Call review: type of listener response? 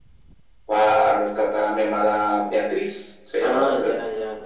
taking over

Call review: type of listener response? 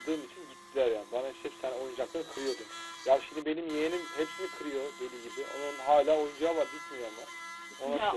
taking over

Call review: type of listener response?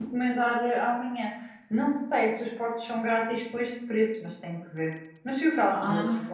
taking over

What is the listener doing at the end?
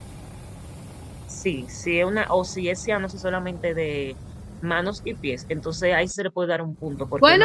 taking over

